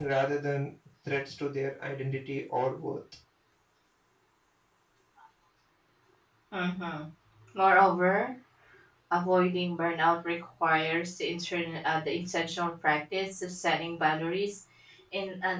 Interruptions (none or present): none